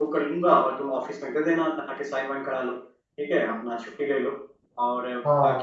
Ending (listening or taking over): listening